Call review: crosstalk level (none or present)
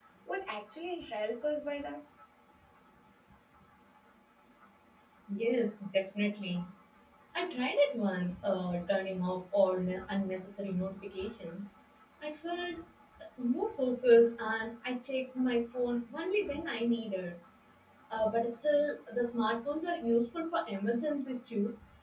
none